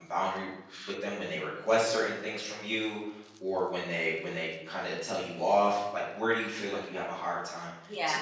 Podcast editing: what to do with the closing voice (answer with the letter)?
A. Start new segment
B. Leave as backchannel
A